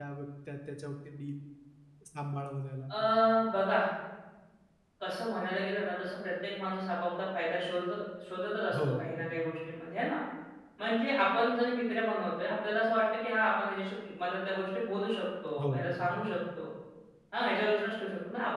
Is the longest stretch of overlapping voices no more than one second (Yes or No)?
Yes